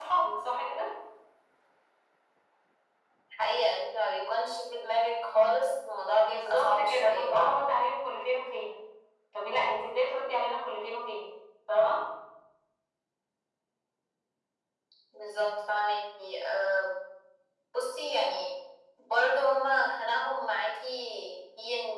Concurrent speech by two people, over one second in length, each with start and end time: 6.2-7.6

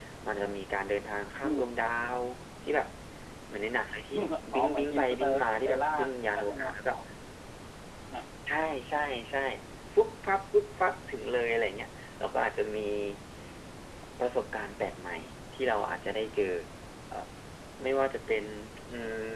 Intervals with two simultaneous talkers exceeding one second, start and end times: 4.5-5.8

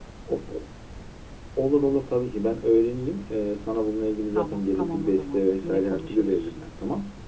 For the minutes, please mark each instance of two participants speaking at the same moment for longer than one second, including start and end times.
4.4-6.3

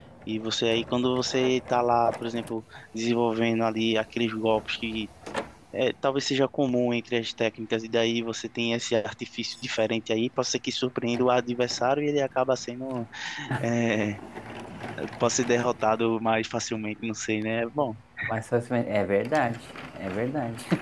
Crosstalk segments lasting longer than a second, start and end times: none

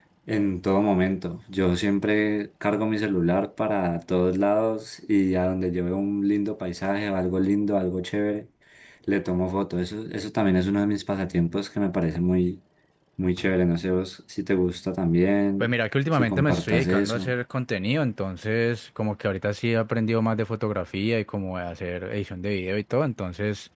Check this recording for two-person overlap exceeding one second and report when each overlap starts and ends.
16.1-17.3

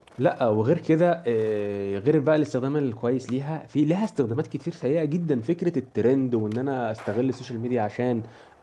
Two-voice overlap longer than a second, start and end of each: none

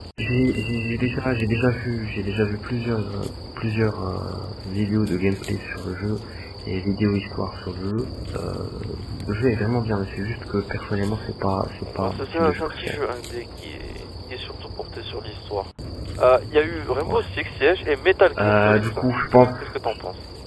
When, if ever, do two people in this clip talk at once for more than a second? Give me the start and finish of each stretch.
11.8-13.0, 18.4-19.7

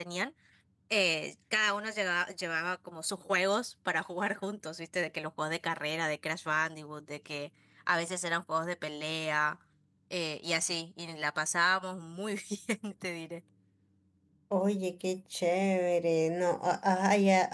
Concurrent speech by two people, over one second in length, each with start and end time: none

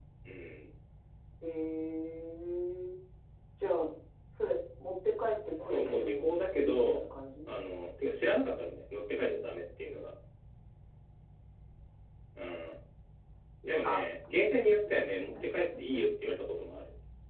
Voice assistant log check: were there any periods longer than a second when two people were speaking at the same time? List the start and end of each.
5.6-7.0

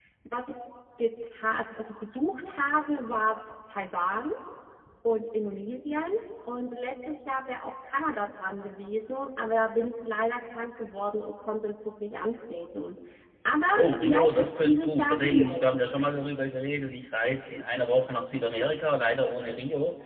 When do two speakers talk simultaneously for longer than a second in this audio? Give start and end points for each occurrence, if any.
13.8-15.7

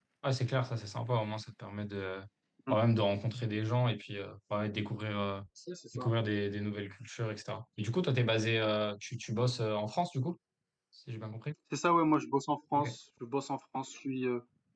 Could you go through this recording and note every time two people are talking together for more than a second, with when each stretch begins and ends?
none

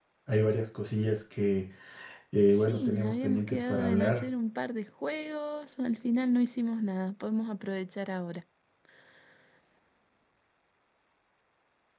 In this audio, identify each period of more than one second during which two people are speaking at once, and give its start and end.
2.5-4.2

